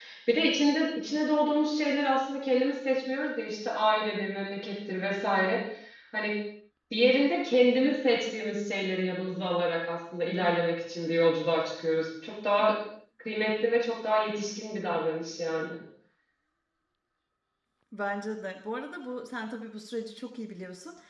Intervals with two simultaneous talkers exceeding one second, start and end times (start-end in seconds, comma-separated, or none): none